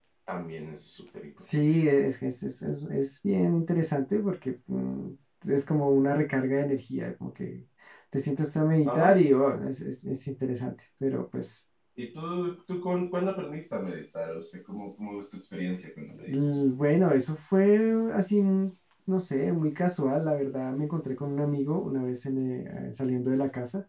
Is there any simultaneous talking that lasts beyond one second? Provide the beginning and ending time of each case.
none

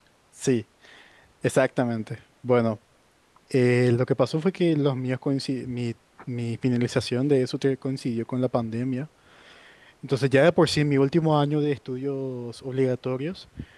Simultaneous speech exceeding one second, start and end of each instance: none

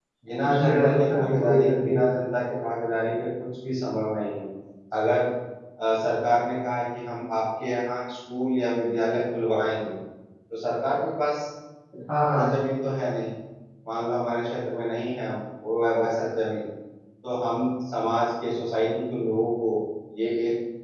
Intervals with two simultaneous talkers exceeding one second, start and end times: 0.5-2.0

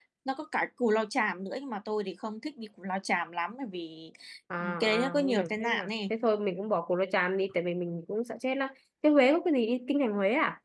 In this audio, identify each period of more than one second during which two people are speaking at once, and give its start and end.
4.8-6.1

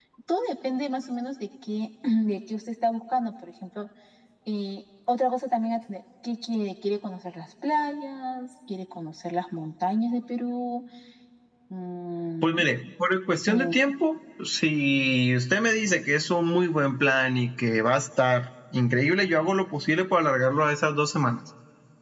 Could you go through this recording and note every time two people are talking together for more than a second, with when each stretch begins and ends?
none

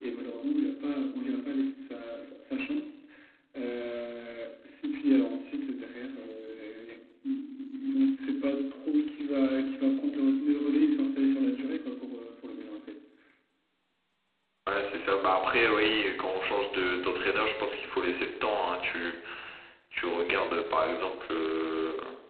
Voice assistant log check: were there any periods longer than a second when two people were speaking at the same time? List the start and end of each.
none

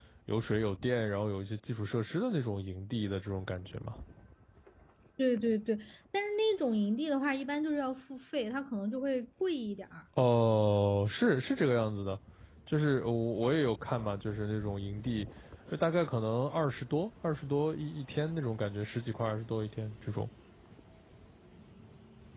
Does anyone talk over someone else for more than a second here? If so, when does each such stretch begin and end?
none

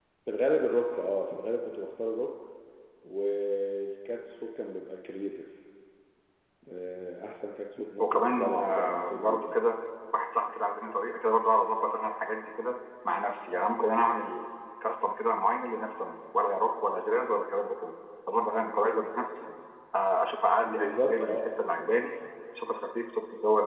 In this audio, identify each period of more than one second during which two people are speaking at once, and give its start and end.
8.0-9.6, 20.7-21.9

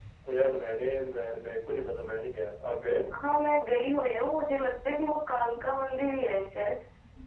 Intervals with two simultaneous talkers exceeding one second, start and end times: none

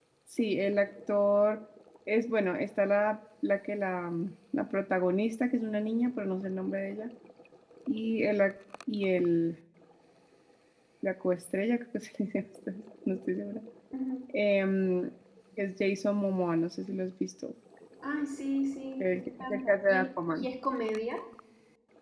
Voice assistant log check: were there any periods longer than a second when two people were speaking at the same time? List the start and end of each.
19.0-20.5

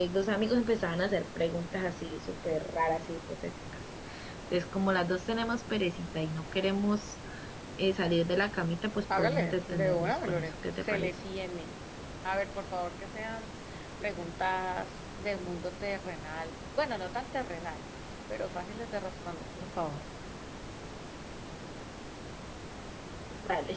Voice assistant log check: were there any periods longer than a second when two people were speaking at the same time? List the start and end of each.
9.2-11.2

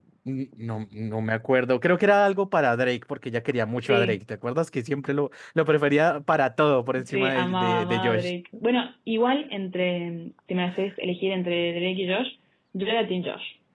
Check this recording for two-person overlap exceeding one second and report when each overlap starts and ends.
7.0-8.3

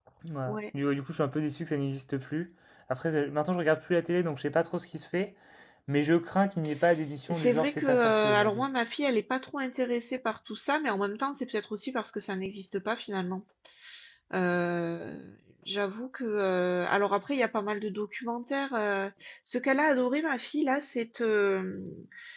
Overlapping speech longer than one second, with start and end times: 7.3-8.7

